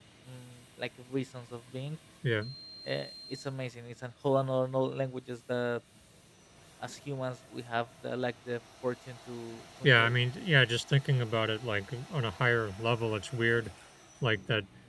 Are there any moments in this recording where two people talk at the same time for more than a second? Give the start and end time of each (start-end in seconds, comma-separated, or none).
none